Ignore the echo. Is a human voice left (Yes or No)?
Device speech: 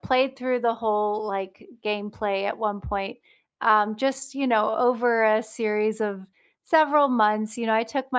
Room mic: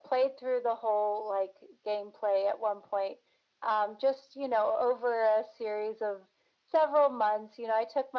No